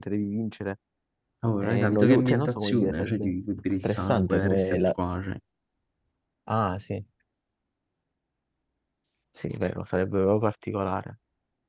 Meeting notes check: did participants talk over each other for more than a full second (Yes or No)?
Yes